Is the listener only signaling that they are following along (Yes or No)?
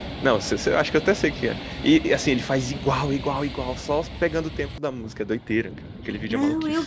No